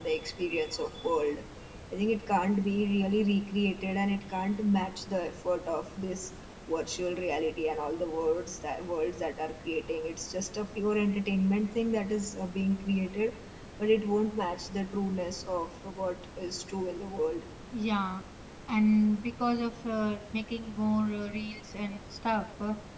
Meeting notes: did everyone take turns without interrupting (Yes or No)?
Yes